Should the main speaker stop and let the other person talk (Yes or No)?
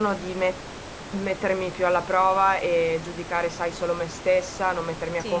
No